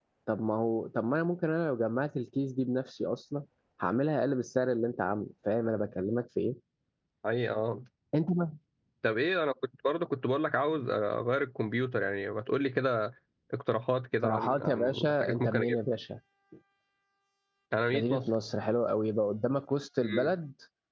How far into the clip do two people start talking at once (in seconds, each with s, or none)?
14.2 s